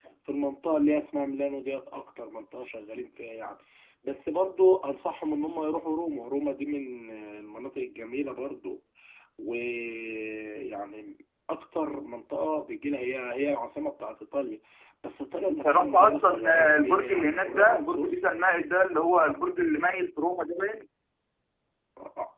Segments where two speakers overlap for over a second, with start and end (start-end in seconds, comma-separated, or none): 15.5-18.3